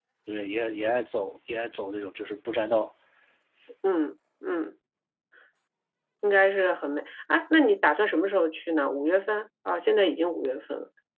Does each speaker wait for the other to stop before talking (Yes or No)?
Yes